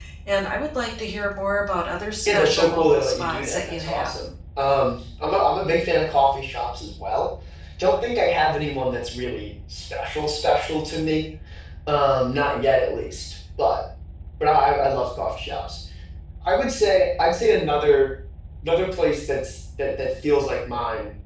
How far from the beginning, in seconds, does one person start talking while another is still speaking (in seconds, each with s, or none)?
2.2 s